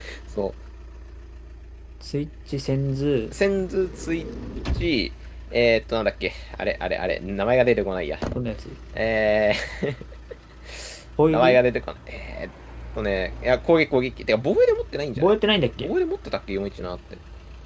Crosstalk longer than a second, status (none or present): none